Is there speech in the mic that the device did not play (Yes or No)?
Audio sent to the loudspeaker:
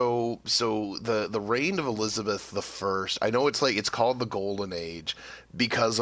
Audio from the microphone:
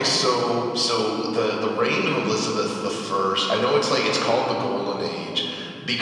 No